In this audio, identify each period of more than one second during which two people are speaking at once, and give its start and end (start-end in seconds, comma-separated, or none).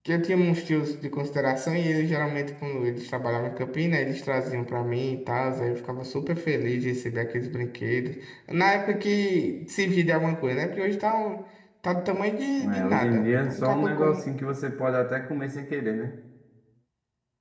12.6-14.2